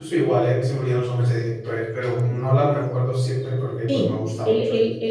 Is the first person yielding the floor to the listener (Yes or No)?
Yes